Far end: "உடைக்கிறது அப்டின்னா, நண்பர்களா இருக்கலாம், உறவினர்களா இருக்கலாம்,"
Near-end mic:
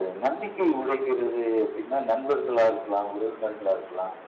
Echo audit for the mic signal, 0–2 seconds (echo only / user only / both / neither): echo only